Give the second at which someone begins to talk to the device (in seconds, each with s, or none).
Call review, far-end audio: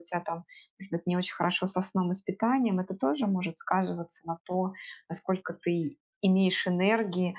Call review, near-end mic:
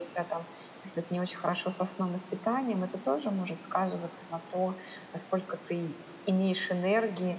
none